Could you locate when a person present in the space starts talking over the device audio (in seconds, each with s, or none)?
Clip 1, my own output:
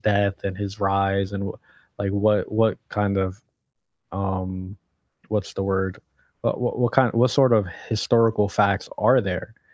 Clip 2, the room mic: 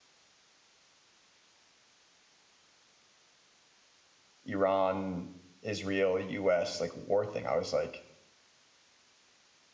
4.4 s